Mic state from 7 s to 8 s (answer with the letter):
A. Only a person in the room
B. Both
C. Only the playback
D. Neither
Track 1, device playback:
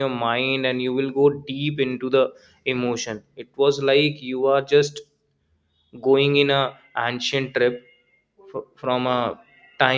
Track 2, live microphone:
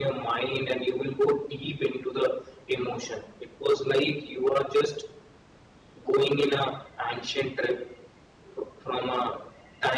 C